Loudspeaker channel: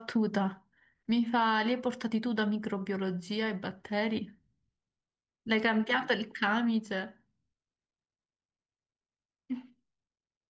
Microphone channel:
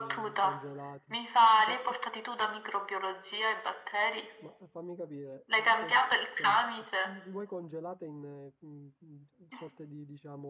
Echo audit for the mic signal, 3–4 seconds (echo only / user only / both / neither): echo only